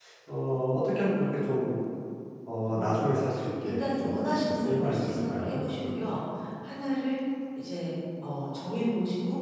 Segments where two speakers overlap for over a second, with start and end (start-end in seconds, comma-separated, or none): 3.6-5.9